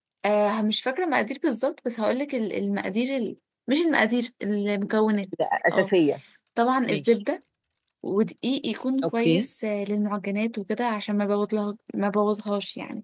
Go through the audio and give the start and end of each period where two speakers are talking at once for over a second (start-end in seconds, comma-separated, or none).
none